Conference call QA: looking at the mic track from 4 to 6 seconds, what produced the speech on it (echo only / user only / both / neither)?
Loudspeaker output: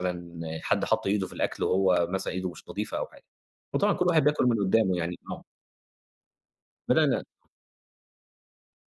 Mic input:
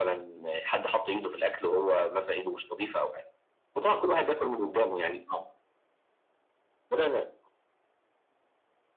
echo only